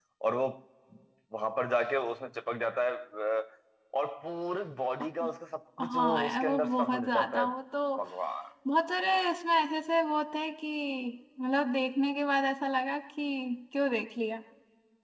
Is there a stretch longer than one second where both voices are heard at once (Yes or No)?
Yes